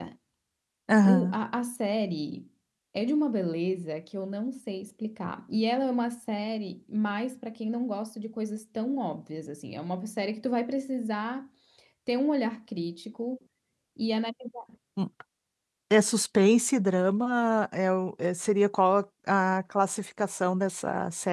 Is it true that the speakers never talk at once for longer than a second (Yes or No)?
Yes